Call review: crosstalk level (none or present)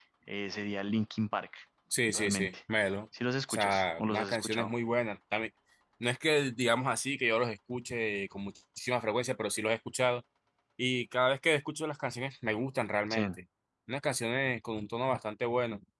present